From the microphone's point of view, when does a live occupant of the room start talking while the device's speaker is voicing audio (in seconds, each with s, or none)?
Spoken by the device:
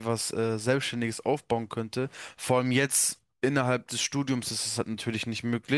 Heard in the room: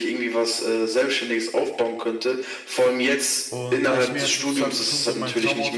3.5 s